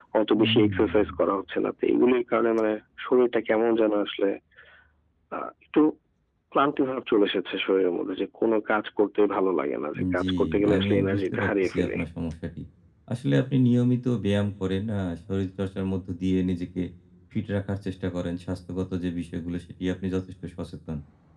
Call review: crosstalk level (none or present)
present